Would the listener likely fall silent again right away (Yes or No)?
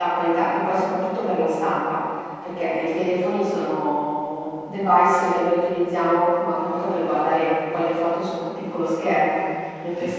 Yes